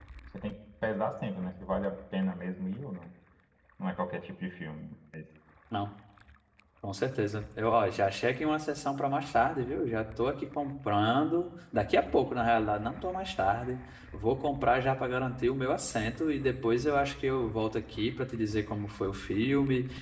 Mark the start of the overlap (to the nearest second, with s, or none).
none